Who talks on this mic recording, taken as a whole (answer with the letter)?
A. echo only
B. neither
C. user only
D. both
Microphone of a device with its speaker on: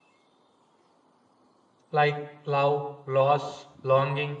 C